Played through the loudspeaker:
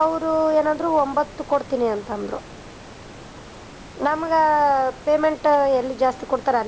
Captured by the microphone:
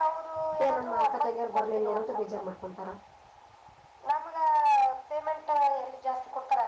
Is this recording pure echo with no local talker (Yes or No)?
No